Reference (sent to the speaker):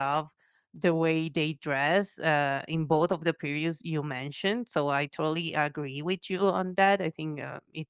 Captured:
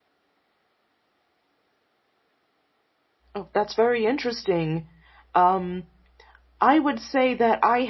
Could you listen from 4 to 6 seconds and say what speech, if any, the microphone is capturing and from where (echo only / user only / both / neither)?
user only